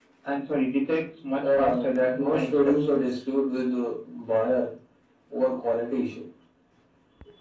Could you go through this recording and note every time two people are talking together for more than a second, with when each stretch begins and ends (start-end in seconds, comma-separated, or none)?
1.4-2.9